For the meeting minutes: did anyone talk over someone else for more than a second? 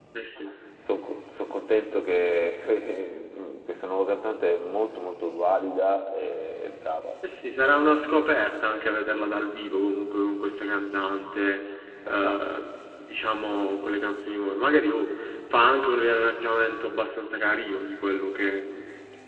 No

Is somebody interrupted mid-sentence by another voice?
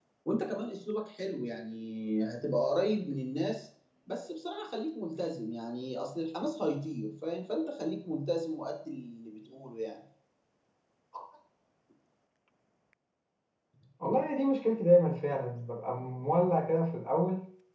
No

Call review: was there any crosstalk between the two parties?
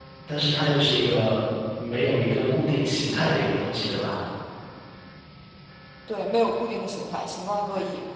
No

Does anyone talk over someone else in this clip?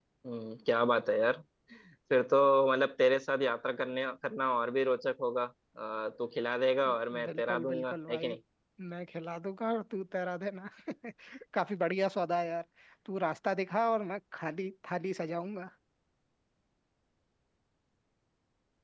Yes, from 6.8 s

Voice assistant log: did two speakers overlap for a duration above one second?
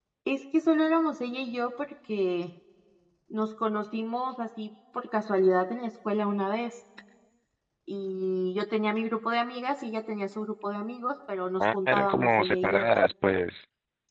Yes, from 11.6 s

